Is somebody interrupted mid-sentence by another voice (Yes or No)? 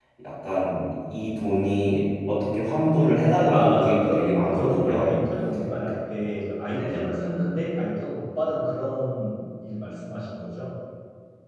Yes